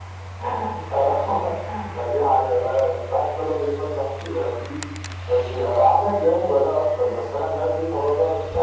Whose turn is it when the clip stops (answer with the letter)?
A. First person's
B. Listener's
A